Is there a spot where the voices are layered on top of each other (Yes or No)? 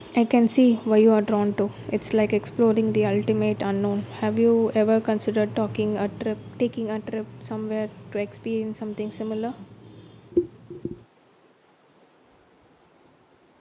No